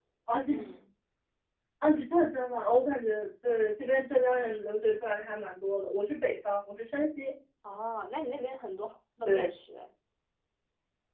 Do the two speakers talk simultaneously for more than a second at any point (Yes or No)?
No